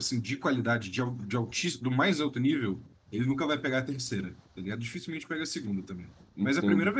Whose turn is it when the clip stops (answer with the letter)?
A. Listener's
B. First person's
A